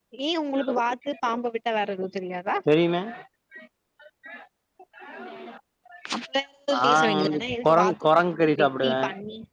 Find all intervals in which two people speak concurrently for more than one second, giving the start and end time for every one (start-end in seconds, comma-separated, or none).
6.7-8.9